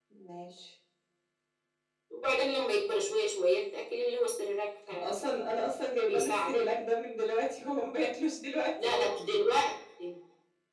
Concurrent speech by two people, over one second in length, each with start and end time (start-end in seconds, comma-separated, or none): none